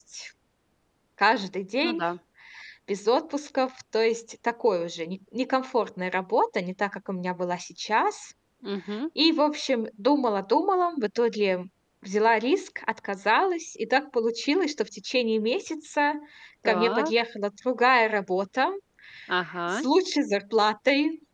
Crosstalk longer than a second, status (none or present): none